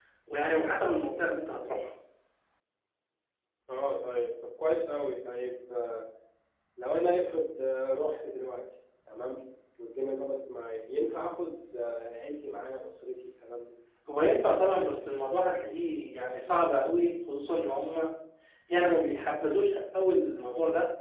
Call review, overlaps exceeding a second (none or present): none